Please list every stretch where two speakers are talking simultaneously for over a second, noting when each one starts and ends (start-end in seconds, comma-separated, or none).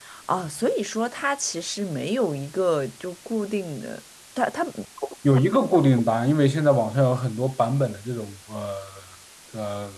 none